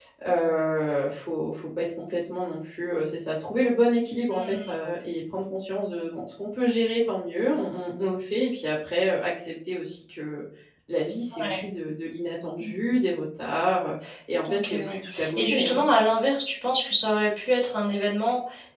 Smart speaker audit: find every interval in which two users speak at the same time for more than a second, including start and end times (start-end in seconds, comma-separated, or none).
14.5-15.8